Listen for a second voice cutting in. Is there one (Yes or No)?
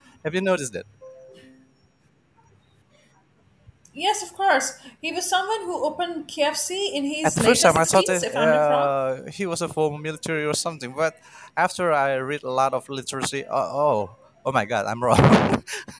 Yes